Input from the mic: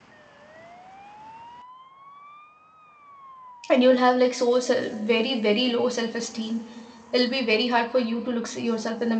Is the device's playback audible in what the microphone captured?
No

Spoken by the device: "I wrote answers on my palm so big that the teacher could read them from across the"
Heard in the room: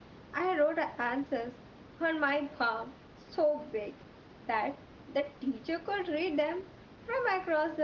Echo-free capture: No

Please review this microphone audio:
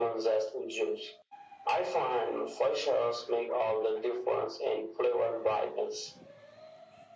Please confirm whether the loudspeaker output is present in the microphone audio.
Yes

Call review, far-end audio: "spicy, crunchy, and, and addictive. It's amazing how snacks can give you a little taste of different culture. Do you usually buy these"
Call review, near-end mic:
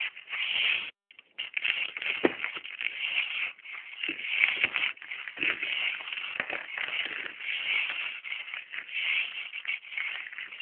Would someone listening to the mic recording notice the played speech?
No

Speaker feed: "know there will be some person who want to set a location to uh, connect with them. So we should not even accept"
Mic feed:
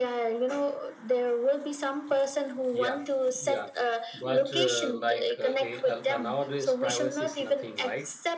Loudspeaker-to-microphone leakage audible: Yes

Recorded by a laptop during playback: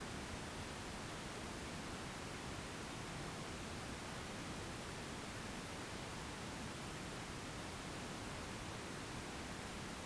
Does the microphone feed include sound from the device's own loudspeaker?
No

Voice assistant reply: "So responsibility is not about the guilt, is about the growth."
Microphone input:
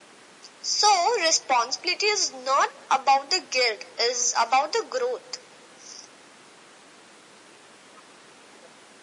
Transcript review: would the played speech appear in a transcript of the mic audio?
Yes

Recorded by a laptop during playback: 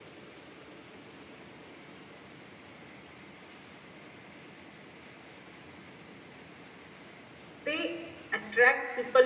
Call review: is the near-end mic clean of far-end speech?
Yes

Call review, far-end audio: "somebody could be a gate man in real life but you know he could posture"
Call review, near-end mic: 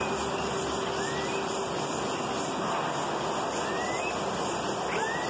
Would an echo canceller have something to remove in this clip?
No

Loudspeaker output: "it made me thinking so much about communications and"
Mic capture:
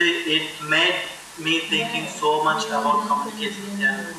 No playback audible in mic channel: No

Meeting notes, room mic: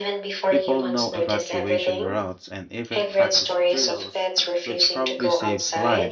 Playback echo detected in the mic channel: Yes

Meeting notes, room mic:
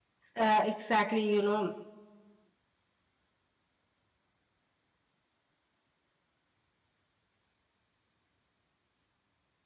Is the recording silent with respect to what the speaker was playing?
Yes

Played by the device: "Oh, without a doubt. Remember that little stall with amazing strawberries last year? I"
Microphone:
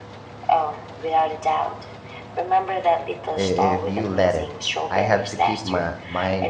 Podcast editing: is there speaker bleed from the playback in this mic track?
Yes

